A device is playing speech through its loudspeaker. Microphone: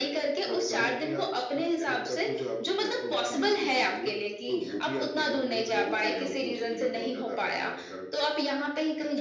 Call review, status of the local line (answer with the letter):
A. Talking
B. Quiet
B